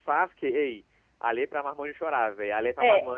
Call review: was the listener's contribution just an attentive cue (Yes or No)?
No